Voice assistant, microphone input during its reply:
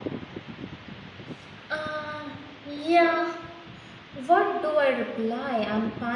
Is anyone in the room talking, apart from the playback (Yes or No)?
Yes